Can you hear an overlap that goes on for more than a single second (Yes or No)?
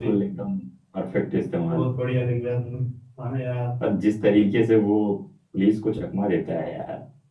No